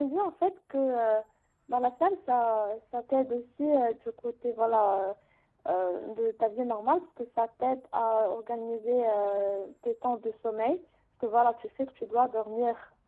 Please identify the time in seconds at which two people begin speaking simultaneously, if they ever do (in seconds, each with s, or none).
none